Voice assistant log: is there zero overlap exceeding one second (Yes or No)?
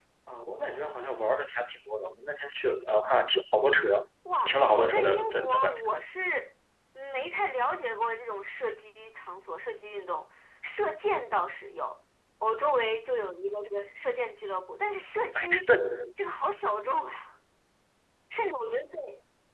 No